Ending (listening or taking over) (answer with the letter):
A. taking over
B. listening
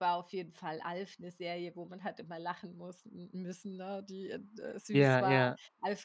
B